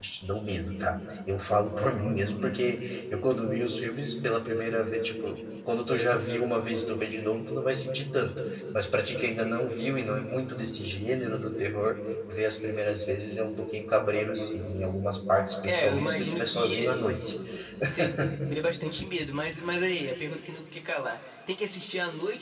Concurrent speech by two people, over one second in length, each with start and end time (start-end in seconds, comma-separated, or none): 15.7-16.9